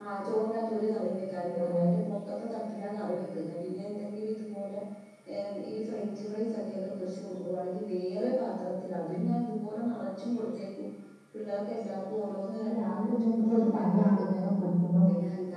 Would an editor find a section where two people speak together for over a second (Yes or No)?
Yes